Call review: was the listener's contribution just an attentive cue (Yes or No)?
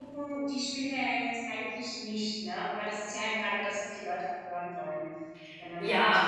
No